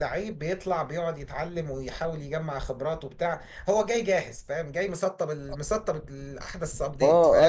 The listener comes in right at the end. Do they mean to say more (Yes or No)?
Yes